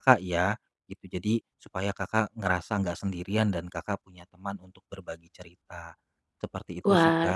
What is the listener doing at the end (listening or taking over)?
taking over